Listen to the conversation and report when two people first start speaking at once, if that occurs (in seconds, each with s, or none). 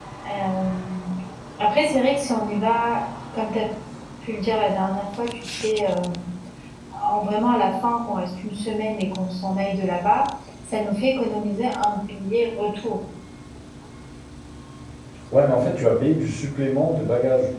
none